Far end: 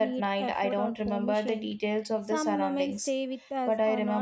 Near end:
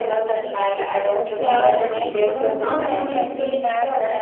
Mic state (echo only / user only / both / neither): both